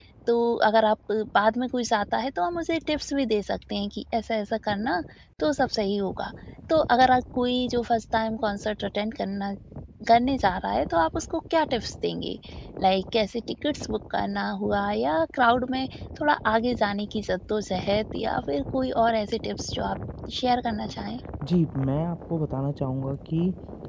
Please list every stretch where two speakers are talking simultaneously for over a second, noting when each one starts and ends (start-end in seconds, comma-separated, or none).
none